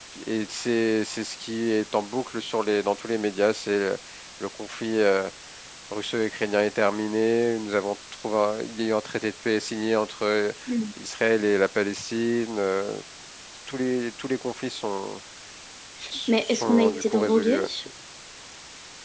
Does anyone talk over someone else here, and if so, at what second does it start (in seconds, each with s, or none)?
16.3 s